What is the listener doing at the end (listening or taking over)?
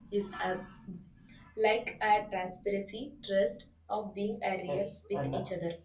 taking over